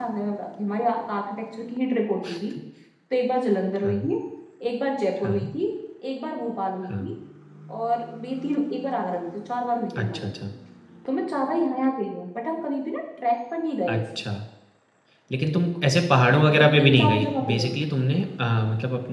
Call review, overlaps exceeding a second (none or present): present